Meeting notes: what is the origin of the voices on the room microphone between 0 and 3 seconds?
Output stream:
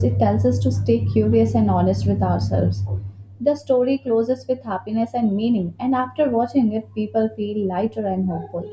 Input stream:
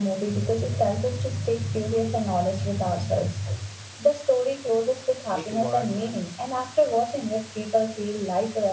echo only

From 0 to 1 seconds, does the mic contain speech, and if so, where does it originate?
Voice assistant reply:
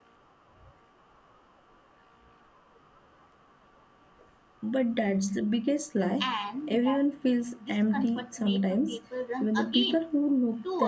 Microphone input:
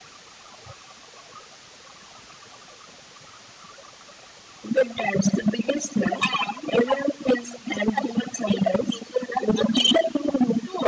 neither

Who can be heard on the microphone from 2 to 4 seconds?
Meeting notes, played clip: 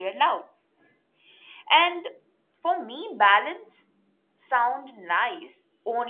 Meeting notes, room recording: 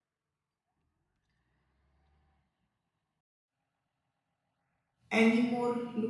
neither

